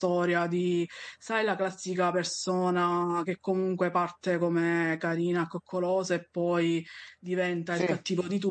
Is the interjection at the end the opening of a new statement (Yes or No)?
No